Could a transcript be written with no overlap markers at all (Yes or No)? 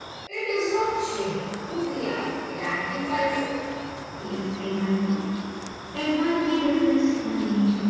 Yes